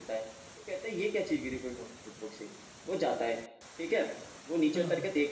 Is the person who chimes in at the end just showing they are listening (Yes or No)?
Yes